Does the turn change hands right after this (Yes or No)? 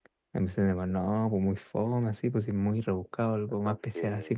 No